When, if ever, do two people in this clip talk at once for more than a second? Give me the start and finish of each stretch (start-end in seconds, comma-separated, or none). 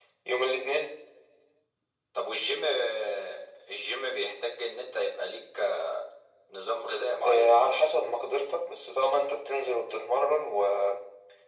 none